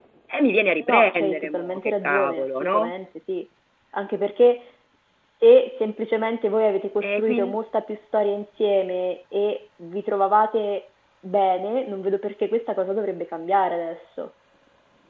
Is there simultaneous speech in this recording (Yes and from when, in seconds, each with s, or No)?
Yes, from 0.9 s